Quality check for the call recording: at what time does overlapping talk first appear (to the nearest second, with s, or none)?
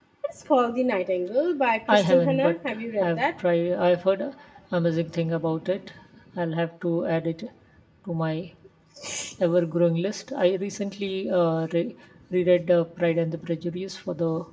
2 s